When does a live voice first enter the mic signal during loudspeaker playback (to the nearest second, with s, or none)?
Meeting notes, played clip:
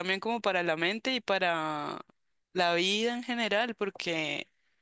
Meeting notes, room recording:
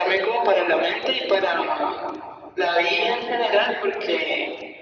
none